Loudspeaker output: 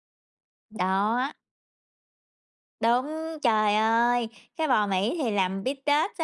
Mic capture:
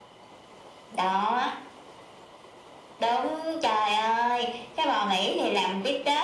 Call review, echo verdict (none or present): present